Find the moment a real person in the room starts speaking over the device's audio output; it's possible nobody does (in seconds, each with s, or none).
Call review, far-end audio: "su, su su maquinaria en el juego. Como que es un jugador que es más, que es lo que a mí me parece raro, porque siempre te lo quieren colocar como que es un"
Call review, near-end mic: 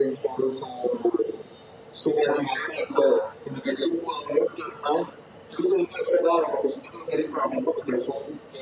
none